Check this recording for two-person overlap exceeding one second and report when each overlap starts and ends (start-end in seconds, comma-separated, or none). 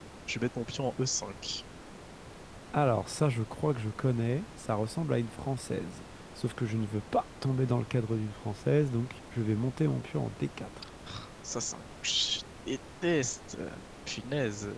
none